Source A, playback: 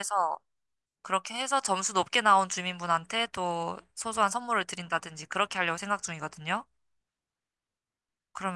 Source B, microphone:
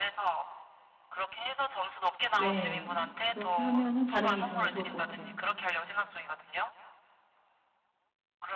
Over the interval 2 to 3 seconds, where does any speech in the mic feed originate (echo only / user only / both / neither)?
both